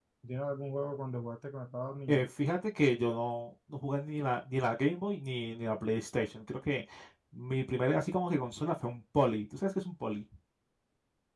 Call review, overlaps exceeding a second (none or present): none